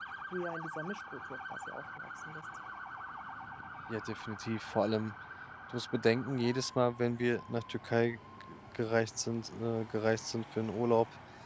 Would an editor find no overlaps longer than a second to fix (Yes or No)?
Yes